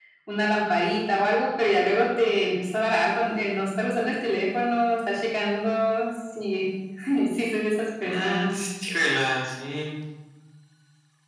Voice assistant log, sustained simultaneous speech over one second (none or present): none